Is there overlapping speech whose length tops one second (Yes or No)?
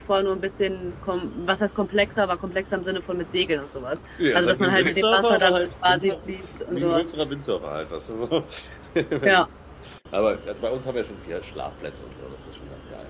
Yes